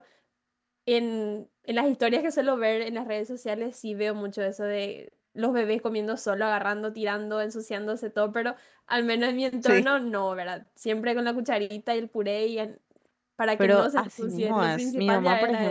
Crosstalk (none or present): present